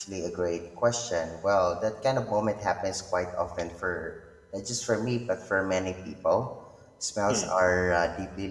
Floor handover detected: No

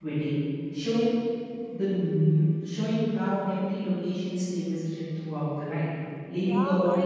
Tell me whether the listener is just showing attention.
No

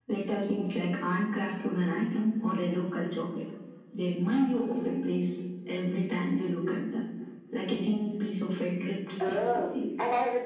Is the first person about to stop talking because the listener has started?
Yes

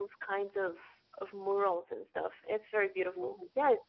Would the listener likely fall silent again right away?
Yes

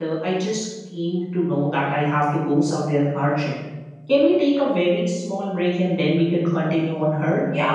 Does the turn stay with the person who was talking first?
No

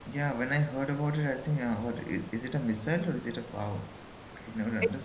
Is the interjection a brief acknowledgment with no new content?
No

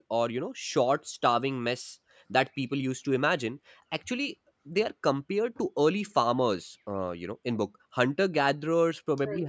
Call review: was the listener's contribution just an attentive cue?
Yes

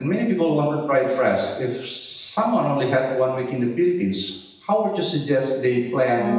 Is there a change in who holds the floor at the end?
Yes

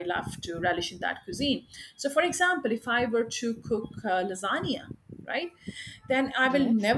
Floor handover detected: No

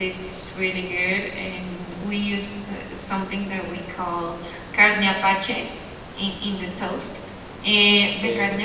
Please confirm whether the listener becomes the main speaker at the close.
No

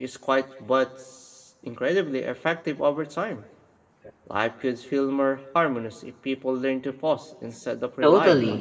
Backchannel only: No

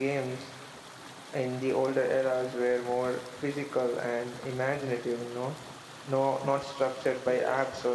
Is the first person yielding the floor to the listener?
No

